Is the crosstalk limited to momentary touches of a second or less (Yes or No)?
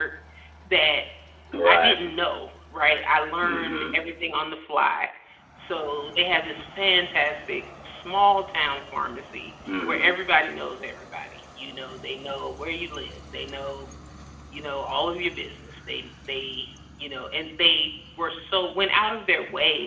Yes